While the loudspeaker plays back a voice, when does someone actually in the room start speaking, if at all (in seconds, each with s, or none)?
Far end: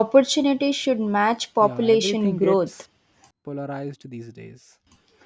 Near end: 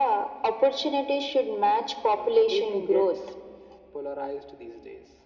none